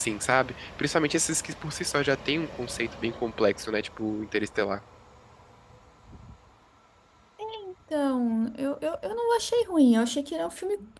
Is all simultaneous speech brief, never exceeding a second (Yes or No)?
Yes